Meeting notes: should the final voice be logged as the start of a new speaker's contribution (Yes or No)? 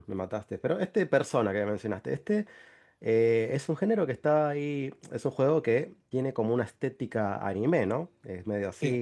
No